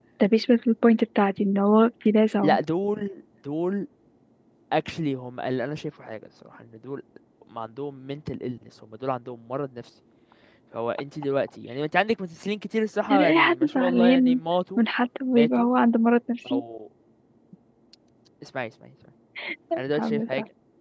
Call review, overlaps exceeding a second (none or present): present